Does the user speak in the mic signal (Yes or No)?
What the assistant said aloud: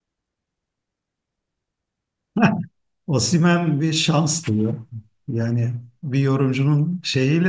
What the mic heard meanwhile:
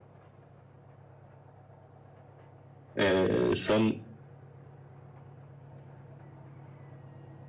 Yes